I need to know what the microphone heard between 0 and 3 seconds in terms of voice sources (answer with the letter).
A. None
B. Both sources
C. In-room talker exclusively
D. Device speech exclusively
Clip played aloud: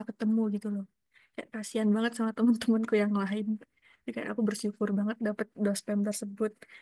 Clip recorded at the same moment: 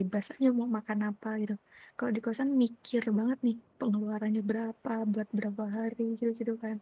C